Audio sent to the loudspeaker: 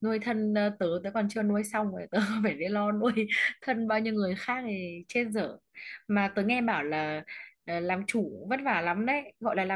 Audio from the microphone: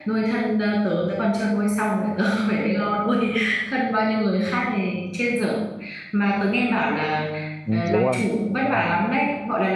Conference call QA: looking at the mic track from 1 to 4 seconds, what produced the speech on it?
echo only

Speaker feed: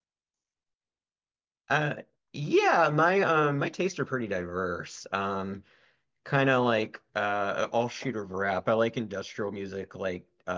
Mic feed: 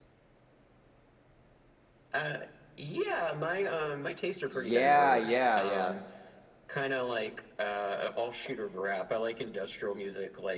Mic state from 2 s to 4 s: echo only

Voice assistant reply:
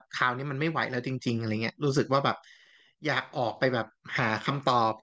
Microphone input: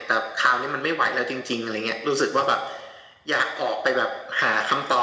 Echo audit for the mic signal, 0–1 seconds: echo only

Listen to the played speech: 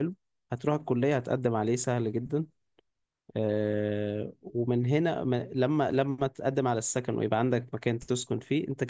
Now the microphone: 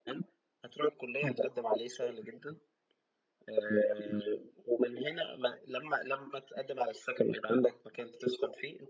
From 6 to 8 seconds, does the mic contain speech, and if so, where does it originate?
echo only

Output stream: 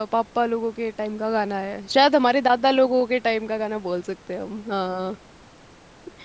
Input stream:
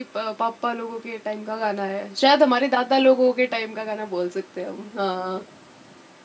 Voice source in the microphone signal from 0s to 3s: echo only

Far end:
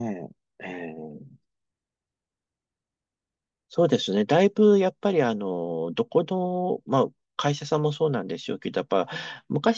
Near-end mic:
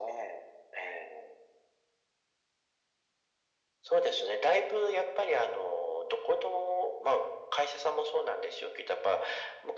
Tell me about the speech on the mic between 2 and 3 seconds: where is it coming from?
neither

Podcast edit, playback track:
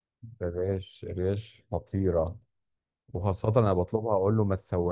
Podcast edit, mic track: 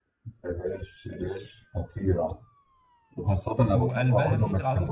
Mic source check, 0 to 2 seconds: echo only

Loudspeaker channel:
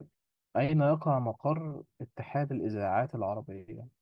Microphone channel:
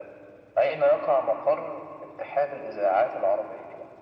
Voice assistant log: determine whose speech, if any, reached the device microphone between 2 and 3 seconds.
echo only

